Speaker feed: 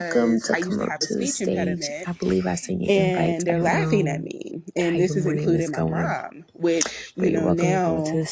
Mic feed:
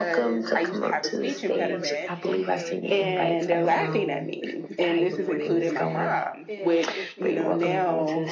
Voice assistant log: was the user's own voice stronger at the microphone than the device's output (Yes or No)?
No